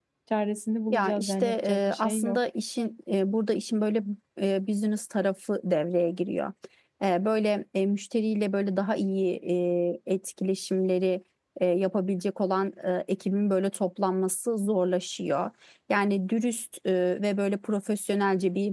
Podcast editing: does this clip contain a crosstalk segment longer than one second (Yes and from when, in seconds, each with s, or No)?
Yes, from 0.9 s